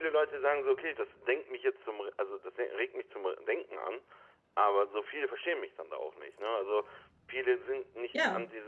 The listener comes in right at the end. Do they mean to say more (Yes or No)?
No